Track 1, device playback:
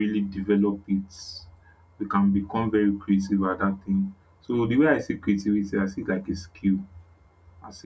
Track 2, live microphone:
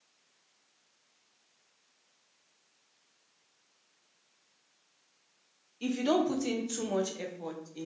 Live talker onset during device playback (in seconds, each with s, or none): 5.8 s